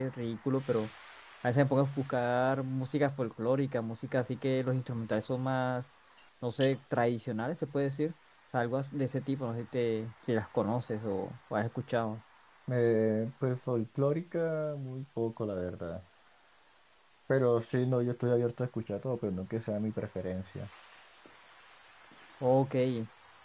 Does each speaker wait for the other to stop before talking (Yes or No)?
Yes